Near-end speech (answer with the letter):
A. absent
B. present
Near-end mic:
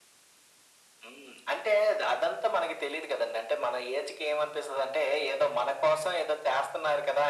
A